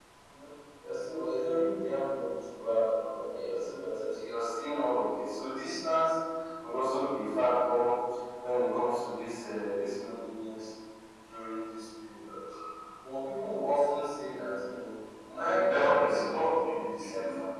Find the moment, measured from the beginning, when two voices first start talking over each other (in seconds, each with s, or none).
15.4 s